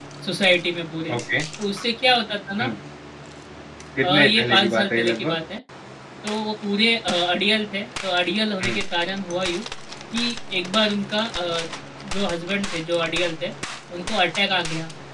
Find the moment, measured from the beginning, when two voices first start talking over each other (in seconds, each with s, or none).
4.0 s